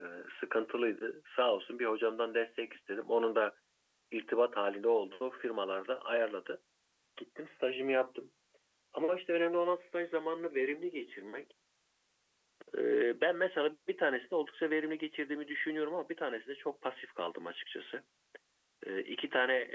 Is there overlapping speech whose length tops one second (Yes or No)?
No